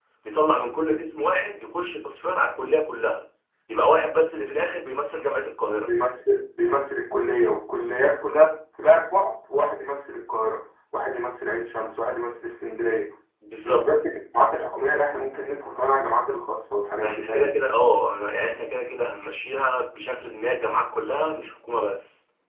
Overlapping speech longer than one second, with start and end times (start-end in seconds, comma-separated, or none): none